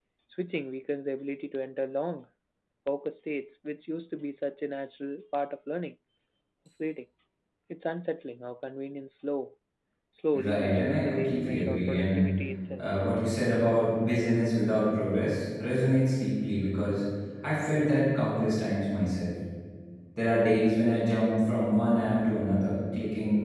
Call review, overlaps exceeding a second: present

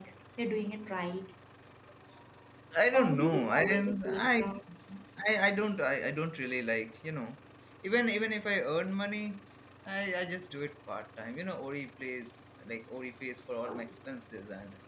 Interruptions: present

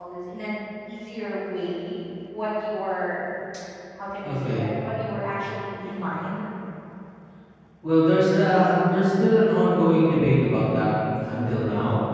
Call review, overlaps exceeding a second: none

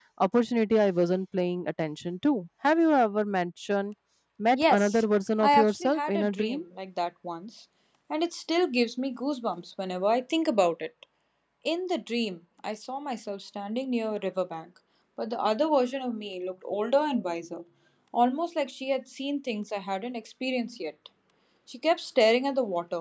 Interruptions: present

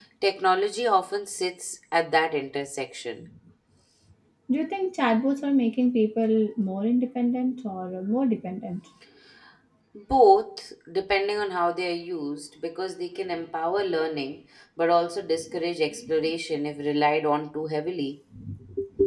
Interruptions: none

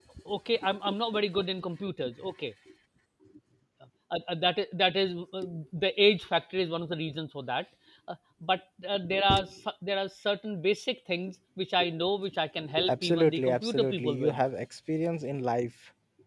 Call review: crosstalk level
present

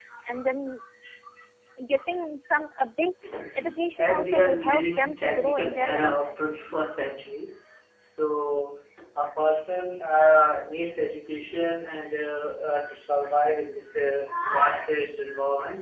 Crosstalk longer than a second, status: present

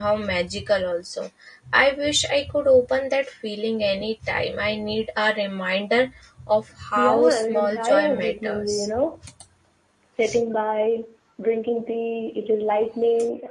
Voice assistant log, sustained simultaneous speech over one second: present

